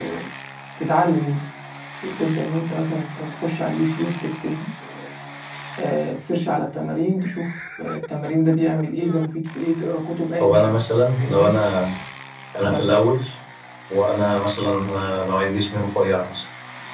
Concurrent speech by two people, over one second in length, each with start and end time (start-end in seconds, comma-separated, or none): none